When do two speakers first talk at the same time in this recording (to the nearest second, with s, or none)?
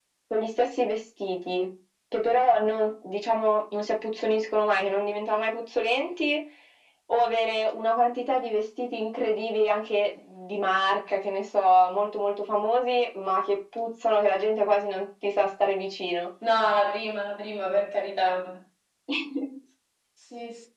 none